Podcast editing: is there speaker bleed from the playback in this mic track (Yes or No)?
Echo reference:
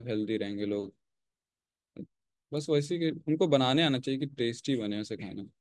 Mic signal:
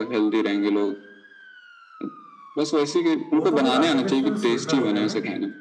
Yes